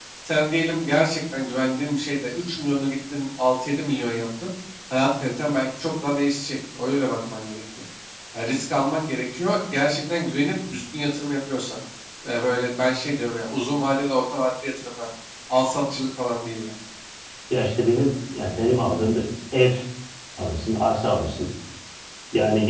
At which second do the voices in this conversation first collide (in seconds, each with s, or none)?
none